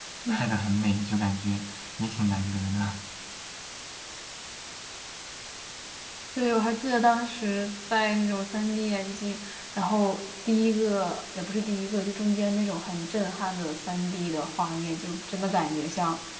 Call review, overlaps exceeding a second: none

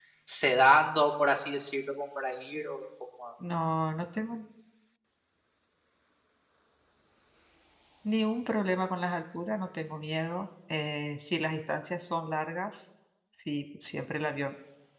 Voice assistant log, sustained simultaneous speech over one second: none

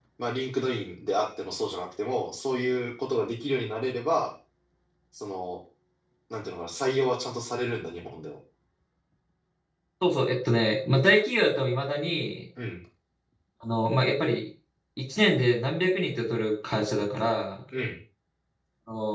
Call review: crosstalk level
none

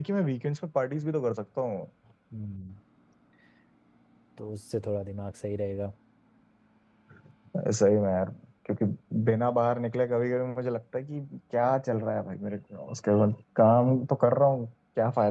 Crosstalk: none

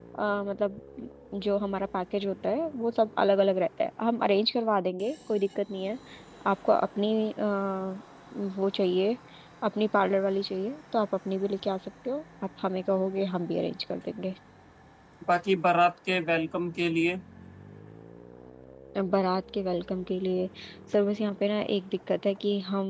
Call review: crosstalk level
none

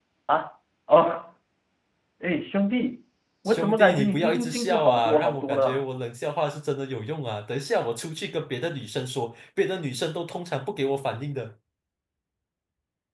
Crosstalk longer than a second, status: present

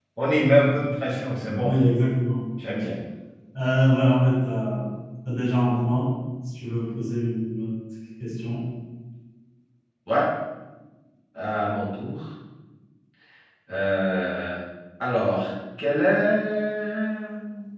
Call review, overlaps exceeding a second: none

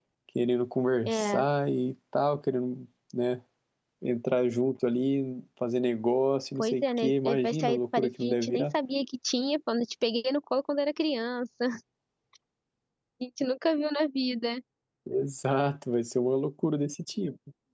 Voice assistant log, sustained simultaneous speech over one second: present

